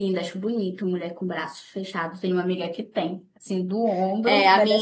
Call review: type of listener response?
taking over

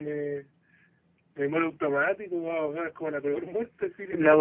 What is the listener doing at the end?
taking over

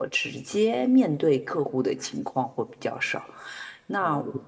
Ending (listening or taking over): listening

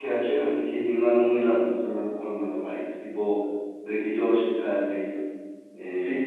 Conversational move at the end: taking over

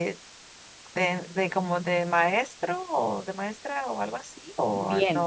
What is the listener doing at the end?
taking over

